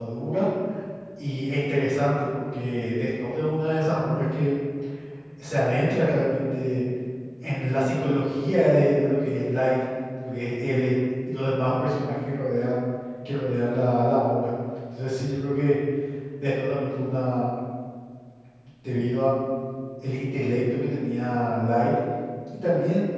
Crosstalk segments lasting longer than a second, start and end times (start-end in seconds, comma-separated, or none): none